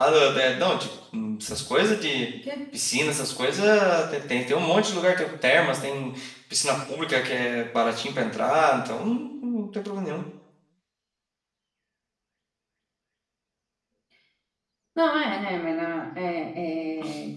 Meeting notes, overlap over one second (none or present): none